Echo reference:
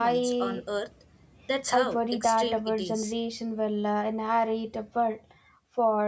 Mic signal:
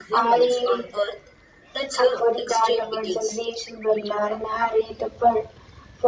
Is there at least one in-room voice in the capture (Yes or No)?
No